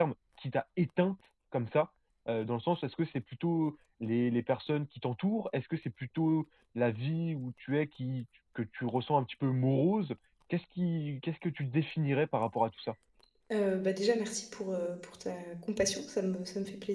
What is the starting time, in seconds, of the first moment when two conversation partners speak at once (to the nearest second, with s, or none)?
none